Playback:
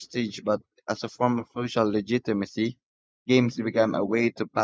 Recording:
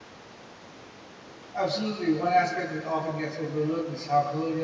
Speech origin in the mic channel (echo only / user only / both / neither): user only